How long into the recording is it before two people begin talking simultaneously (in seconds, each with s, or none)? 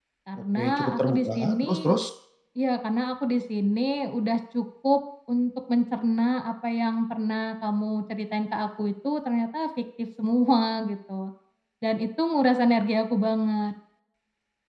0.6 s